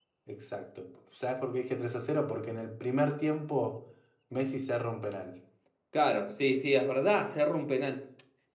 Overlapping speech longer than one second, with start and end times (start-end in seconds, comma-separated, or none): none